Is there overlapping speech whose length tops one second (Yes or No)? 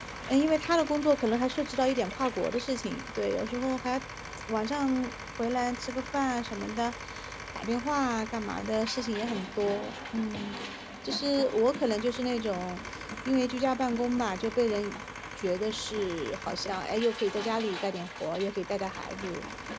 No